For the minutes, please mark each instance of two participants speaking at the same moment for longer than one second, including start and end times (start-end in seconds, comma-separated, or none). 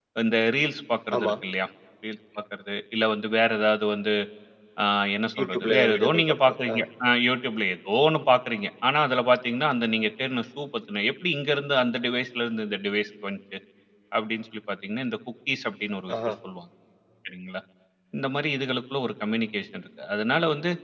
5.4-6.8